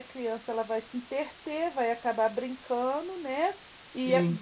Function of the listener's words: listening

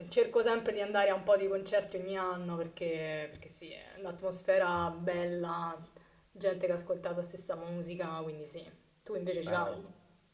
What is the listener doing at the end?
taking over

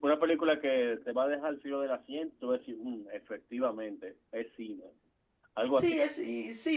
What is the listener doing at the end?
taking over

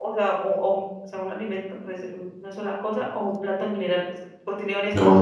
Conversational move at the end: taking over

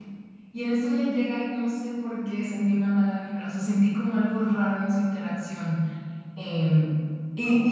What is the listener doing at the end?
taking over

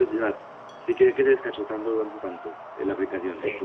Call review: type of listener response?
taking over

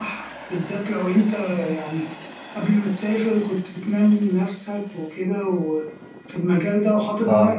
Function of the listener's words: listening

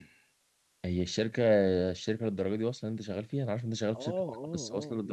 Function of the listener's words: taking over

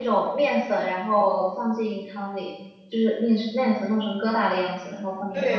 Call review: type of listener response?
taking over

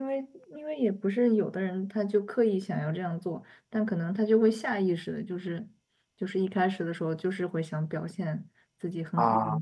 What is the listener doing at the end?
listening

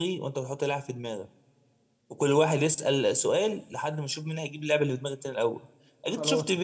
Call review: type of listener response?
listening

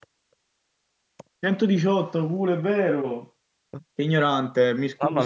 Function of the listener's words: taking over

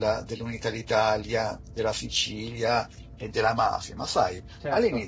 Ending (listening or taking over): listening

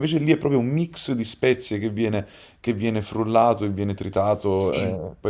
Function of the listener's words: listening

